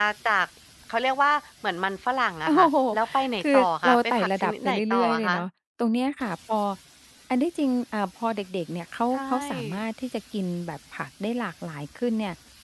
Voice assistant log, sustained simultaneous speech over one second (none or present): present